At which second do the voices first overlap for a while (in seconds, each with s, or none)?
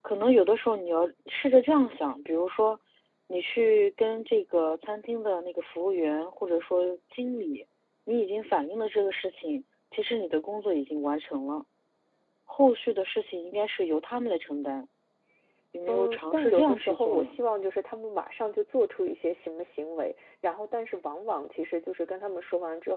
15.9 s